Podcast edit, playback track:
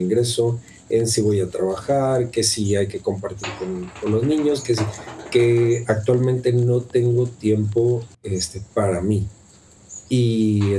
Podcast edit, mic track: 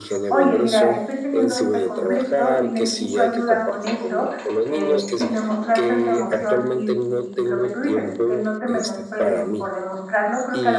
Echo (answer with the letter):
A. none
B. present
B